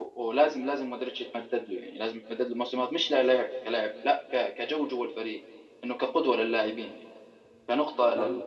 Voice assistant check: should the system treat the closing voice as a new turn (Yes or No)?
No